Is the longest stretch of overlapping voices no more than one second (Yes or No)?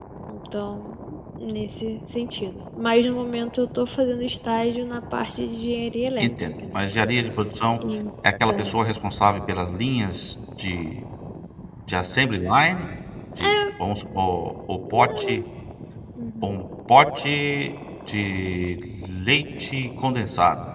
Yes